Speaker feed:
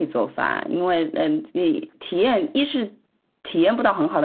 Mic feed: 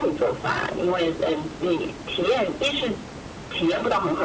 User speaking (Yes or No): No